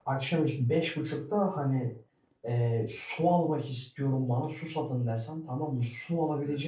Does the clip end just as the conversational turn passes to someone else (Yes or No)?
No